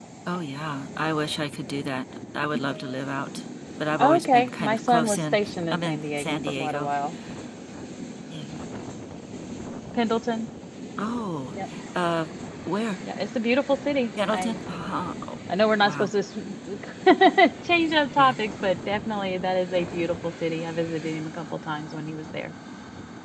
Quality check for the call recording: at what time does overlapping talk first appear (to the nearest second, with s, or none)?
4 s